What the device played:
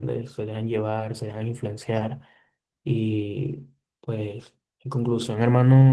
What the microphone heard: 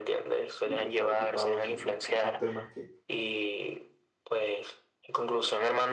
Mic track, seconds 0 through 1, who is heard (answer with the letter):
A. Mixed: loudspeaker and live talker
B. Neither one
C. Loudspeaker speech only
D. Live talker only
A